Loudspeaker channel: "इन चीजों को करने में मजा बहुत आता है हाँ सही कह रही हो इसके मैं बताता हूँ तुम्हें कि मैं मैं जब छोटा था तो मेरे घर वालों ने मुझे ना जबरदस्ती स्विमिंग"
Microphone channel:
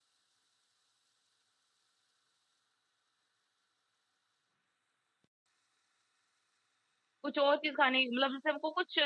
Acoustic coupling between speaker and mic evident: No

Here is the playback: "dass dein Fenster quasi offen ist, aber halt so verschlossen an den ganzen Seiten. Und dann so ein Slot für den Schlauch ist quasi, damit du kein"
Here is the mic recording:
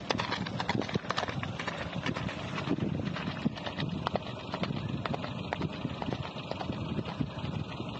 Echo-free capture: Yes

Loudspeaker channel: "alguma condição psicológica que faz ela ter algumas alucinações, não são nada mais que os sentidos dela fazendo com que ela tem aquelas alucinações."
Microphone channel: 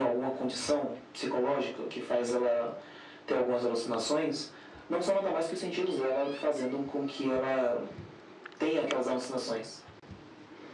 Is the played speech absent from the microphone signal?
No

